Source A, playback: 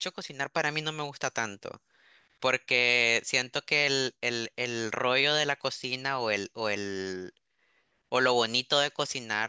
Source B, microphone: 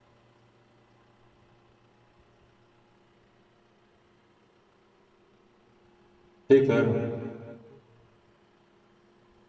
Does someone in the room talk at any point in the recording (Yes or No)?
Yes